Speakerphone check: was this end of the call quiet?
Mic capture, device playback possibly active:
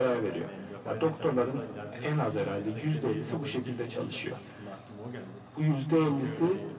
No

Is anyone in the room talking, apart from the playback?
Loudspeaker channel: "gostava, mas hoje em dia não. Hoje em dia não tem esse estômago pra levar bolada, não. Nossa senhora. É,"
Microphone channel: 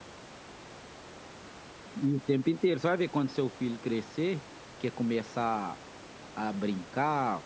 Yes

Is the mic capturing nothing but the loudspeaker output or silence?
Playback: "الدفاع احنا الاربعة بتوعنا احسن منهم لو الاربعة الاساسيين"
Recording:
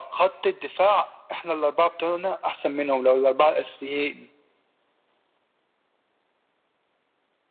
Yes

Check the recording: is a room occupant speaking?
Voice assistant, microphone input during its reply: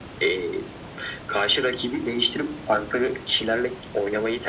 No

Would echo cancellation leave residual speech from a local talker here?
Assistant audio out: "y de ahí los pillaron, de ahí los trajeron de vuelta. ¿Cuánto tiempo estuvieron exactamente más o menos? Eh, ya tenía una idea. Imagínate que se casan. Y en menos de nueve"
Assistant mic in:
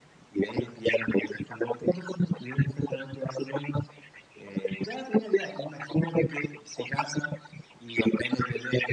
No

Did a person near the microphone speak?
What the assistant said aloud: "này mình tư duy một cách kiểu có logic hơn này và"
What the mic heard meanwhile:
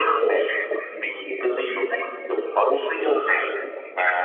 No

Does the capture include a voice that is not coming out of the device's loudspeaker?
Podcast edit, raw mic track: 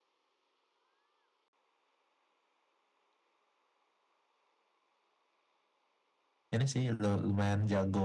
Yes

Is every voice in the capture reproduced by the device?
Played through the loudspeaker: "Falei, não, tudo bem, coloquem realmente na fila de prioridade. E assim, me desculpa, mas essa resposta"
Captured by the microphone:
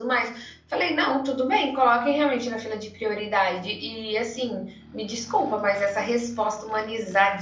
Yes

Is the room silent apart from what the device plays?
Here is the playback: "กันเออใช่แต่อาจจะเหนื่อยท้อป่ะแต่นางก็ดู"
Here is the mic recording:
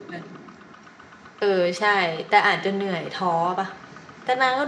Yes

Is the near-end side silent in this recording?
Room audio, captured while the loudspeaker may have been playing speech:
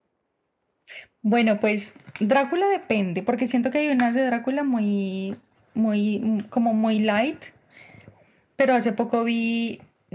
Yes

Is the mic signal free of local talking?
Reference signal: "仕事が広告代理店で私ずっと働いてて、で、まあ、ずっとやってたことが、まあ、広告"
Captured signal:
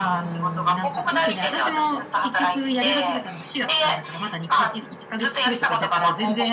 No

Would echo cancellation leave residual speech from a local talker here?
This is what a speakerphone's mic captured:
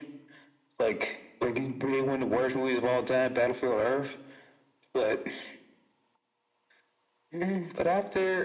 No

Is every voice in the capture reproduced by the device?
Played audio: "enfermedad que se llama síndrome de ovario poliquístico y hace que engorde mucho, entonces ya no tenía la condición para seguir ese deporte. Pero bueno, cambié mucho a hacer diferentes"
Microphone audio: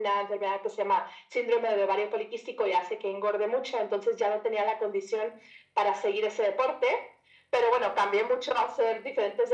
Yes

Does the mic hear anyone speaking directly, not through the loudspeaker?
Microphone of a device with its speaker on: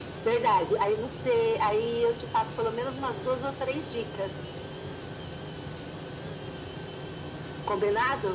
No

